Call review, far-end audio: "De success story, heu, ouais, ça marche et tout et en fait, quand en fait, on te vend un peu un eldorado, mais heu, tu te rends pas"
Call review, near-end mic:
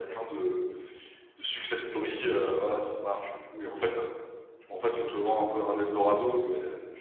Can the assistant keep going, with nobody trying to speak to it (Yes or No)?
Yes